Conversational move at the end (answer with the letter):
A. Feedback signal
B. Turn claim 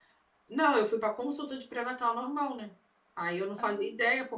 A